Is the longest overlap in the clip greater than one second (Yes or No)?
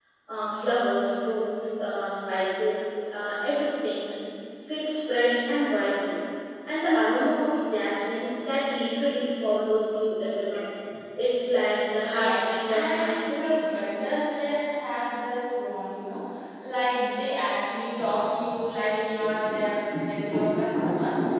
Yes